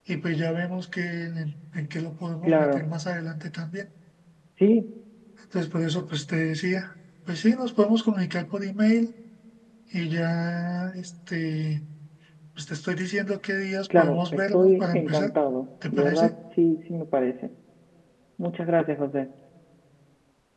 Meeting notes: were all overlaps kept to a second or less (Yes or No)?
No